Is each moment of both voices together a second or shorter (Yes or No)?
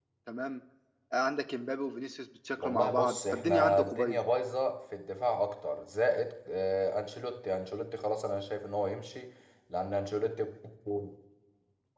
No